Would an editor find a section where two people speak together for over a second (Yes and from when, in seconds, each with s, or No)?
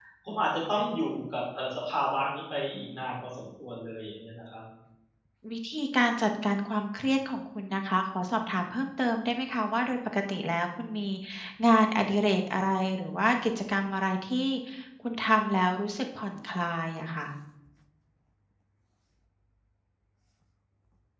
No